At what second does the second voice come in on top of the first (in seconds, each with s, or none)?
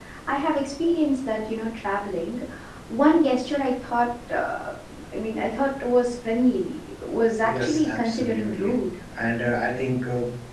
7.4 s